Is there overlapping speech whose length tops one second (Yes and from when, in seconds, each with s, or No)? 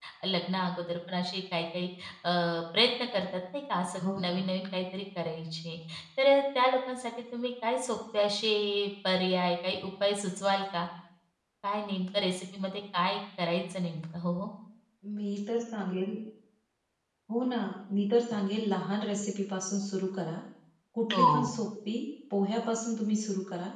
No